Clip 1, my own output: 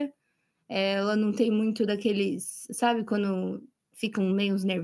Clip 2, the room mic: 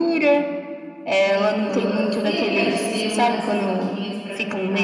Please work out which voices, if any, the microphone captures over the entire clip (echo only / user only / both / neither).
both